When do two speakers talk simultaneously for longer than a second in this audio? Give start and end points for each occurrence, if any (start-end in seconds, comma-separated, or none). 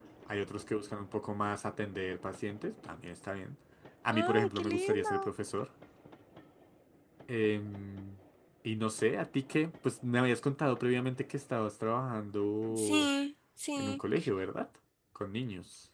4.1-5.3